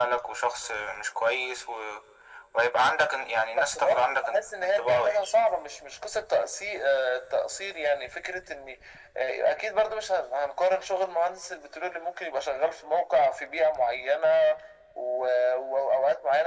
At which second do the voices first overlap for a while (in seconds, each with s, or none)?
3.5 s